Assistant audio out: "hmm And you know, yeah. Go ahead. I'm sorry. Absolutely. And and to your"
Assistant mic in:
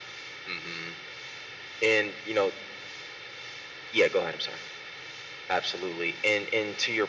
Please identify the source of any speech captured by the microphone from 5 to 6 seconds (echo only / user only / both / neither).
echo only